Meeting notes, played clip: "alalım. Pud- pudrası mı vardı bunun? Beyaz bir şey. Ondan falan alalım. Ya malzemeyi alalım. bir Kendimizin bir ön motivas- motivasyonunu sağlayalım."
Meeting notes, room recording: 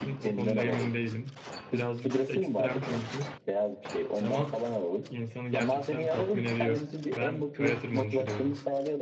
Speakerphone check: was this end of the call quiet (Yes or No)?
No